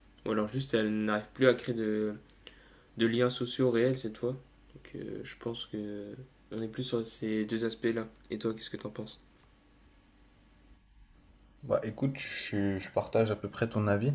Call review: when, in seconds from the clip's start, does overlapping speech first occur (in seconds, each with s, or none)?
none